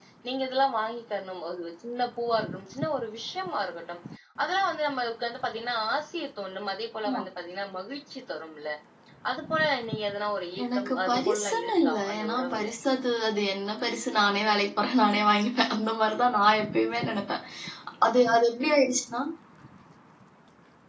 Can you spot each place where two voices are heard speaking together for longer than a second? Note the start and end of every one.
10.7-12.7

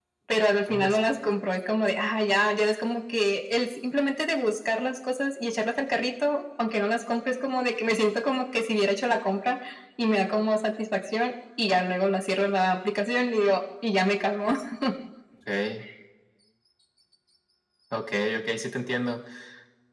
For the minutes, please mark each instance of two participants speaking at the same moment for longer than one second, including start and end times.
none

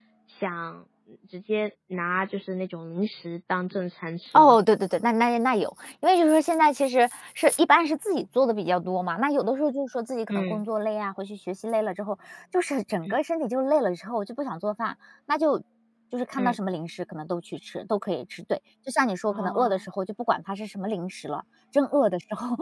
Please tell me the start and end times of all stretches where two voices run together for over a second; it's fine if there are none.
none

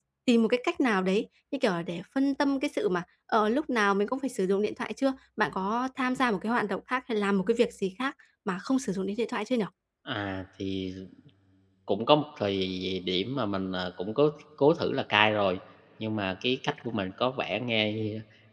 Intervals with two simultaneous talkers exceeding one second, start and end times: none

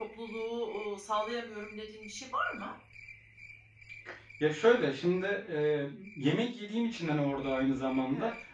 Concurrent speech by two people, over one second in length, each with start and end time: none

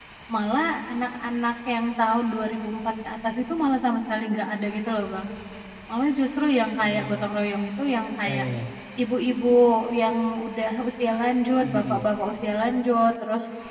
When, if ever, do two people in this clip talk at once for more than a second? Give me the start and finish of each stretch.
none

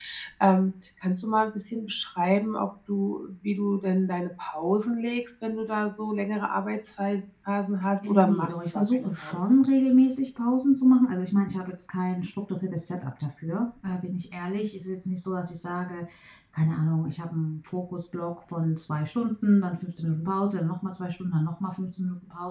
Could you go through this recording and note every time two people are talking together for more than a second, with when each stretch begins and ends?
8.1-9.4

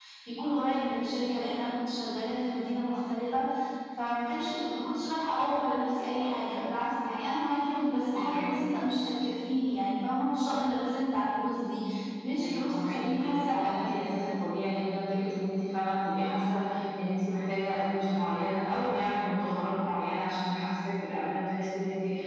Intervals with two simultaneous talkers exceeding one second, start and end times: 12.4-14.0

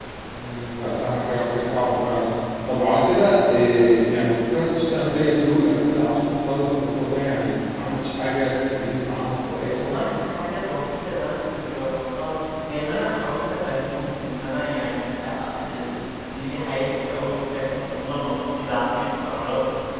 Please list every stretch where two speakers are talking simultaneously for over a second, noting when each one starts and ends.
none

